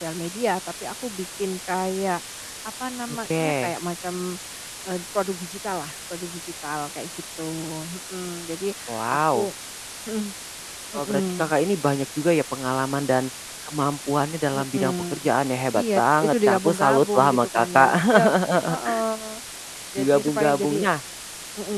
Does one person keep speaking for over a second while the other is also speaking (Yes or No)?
Yes